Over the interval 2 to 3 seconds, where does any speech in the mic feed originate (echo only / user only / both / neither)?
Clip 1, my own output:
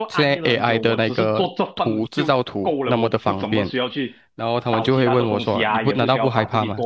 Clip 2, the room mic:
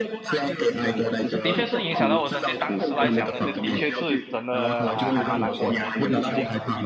both